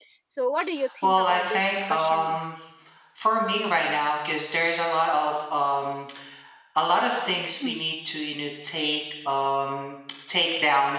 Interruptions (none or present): present